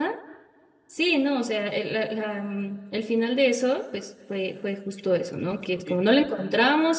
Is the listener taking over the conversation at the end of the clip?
No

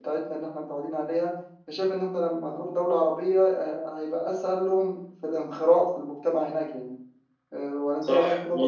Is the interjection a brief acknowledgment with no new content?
No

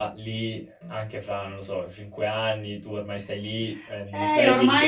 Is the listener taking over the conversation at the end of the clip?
Yes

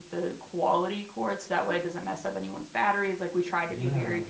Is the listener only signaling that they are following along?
No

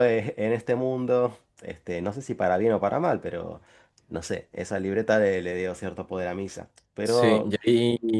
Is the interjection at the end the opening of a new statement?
Yes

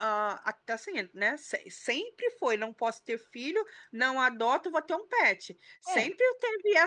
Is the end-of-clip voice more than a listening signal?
No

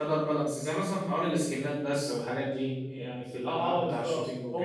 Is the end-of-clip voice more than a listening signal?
Yes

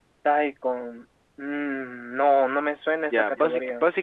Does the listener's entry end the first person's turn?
Yes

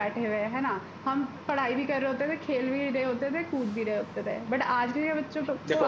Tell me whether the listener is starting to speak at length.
No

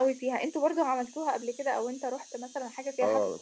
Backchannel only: No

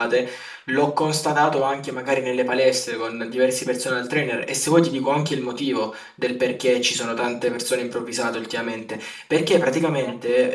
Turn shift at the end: No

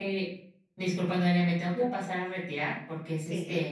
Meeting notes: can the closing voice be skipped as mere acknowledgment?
Yes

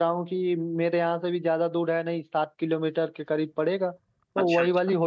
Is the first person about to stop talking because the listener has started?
No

